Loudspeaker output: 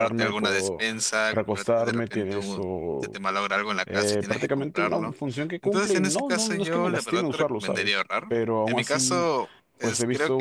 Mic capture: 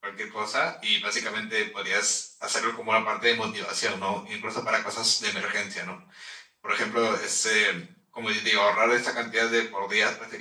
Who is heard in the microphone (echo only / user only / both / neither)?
user only